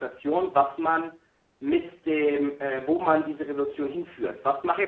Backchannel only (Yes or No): No